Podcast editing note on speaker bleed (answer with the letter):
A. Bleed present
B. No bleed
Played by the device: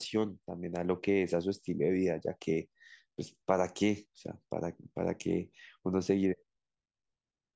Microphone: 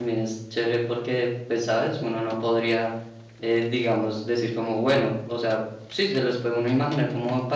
B